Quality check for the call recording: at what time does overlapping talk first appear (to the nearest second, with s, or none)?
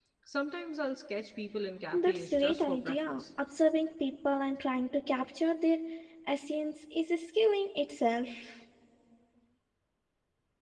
2 s